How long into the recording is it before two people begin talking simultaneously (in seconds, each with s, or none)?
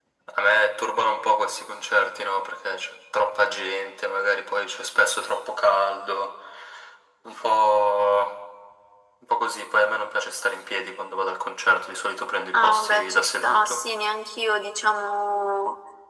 12.5 s